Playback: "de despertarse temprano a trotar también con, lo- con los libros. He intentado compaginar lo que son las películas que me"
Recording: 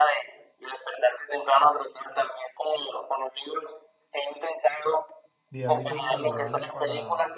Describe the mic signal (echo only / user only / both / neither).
both